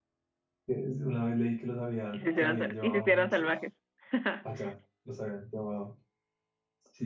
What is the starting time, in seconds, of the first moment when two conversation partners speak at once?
2.1 s

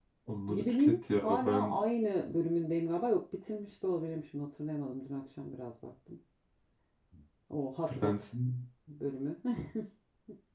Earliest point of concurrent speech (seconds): 0.5 s

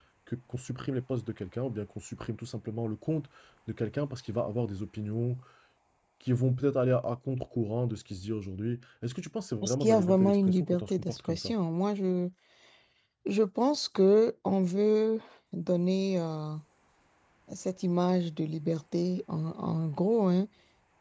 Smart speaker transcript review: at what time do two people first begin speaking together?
9.6 s

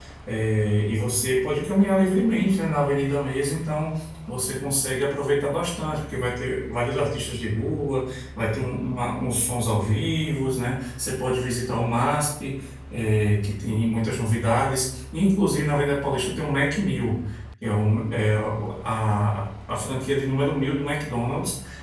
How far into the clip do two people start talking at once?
none

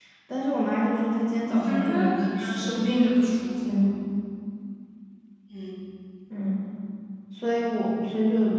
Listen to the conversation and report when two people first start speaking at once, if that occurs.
1.6 s

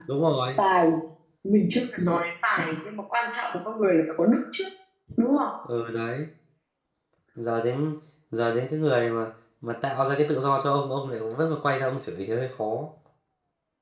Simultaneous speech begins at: none

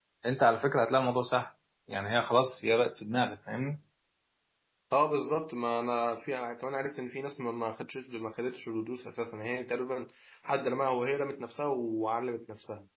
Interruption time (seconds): none

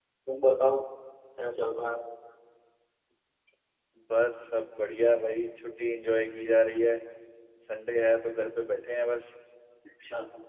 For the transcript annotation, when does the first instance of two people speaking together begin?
none

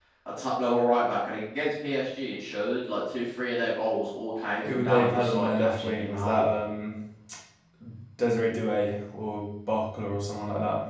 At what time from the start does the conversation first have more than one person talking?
4.7 s

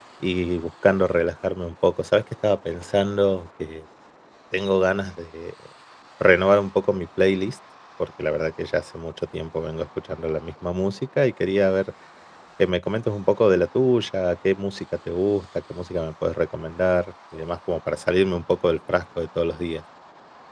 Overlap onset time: none

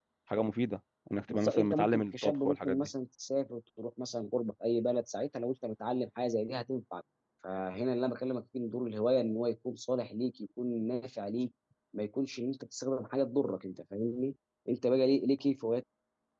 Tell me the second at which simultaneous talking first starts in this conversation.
1.3 s

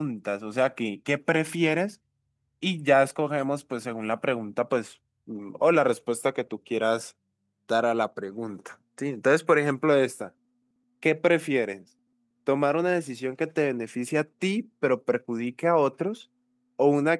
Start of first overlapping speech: none

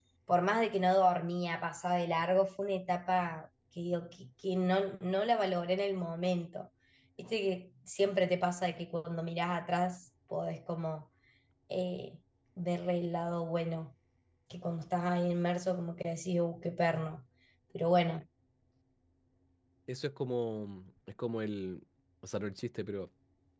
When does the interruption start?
none

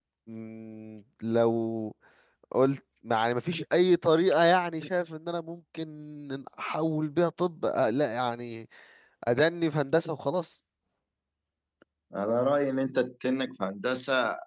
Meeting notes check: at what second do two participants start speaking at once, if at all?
none

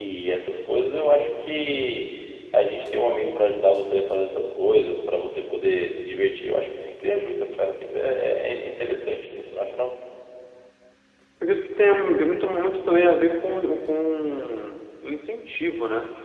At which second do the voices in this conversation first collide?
none

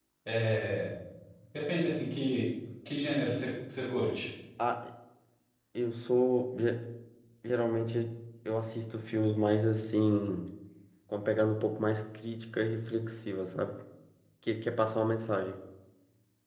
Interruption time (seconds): none

